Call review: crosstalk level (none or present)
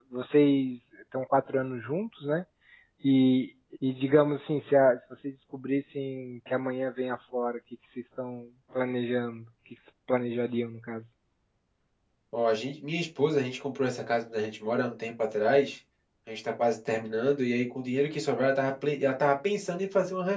none